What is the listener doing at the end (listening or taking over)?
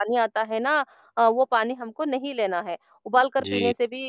listening